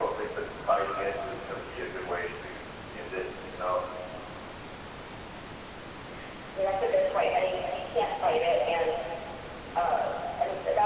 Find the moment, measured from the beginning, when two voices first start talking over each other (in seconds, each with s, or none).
none